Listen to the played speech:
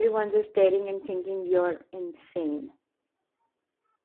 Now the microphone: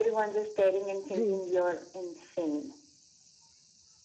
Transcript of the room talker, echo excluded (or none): true